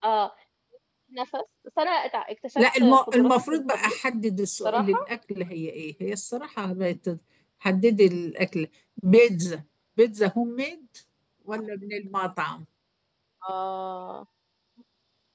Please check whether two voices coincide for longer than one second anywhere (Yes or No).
Yes